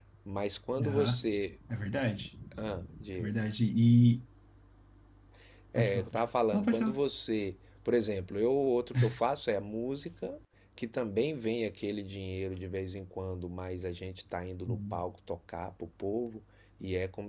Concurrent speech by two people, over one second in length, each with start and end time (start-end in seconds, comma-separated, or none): 5.8-7.0